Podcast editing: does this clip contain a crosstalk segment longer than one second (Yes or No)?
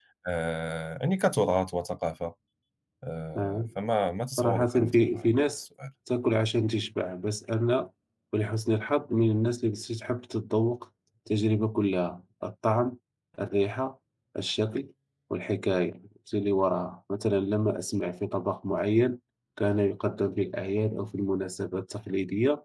Yes